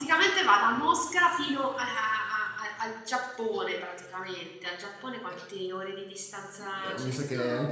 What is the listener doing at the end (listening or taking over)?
taking over